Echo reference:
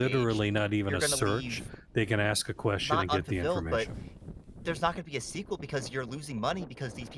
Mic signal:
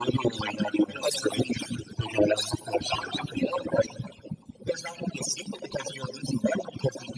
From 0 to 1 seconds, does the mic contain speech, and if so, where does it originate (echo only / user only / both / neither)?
echo only